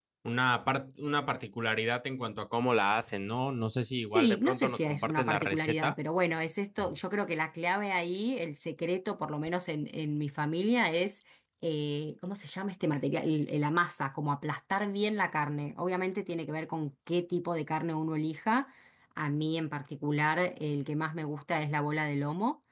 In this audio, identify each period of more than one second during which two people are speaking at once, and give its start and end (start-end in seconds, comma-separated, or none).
4.1-5.9